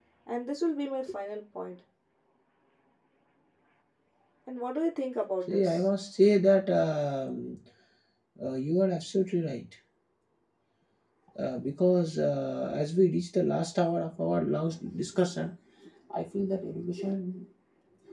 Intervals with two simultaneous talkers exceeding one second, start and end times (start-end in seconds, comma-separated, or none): none